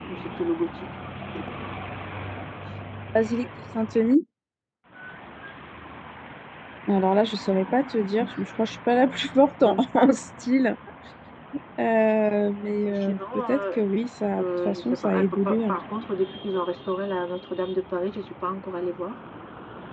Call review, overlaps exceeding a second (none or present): present